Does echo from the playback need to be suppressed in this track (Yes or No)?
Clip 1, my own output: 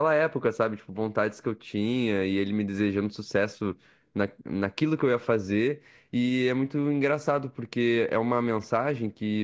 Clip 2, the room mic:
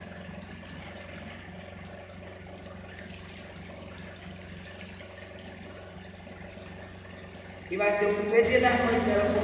No